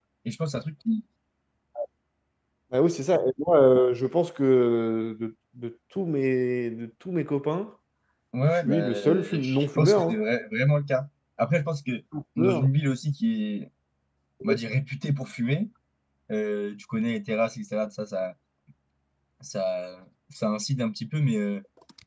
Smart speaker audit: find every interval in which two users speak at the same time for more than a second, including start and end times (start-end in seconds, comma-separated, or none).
8.7-10.2